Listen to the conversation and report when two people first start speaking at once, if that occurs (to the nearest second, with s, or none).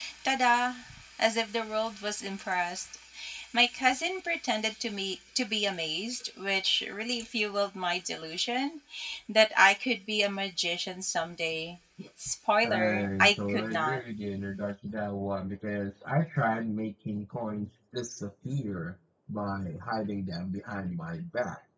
13 s